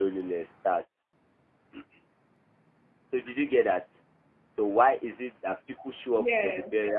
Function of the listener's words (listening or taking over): listening